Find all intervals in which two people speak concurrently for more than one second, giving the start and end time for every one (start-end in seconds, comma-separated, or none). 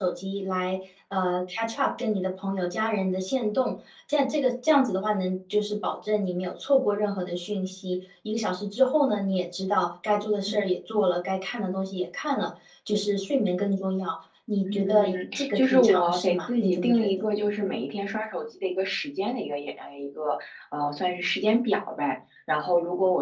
14.7-17.1